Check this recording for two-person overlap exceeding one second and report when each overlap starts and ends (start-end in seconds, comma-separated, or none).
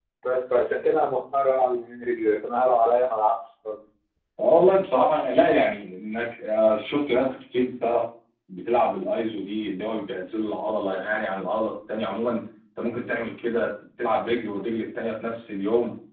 none